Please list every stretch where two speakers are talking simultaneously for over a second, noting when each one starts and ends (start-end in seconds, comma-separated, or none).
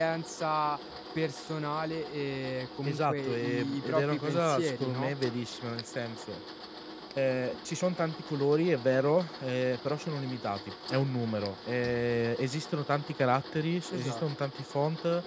2.8-5.1